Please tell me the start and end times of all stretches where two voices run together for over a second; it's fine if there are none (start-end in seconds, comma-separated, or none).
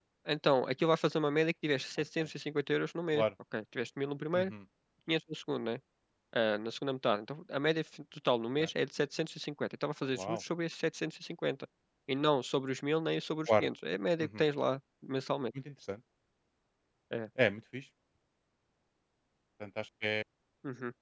none